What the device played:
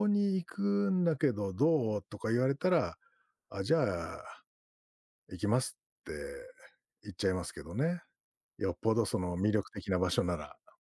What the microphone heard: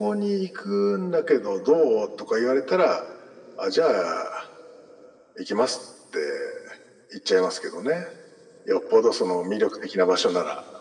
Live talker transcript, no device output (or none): none